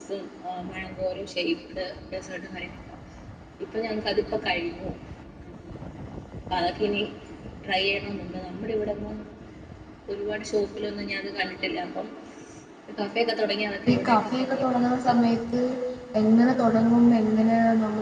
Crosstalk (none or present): present